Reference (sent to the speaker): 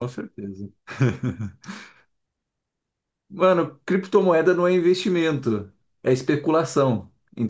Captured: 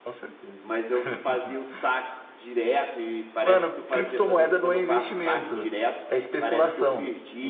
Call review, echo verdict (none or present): present